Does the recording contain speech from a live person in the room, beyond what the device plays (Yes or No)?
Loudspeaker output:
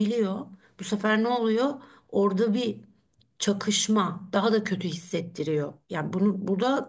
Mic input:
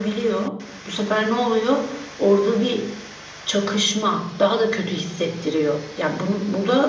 No